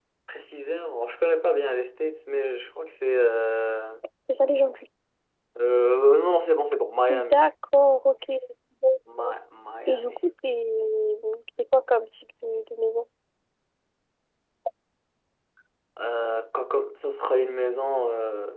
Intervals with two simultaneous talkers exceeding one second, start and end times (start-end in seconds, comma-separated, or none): none